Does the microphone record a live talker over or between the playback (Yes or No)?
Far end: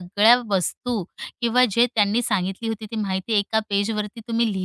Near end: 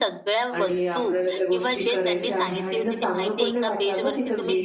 Yes